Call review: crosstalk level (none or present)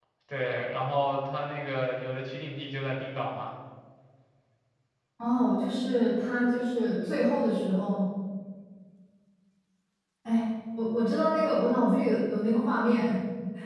none